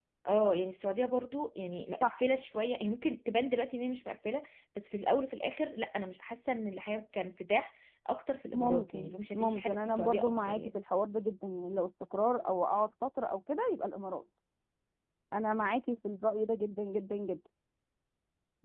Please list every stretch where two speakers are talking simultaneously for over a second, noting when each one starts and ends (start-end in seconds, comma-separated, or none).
8.5-10.8